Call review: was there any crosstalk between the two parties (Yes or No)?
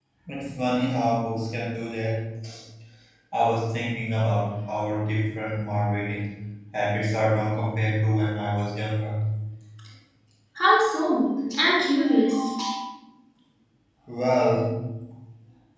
No